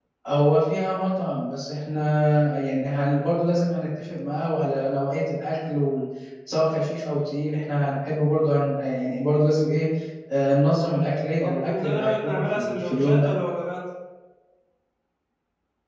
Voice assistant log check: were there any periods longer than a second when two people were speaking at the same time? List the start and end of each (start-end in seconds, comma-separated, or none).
11.4-13.3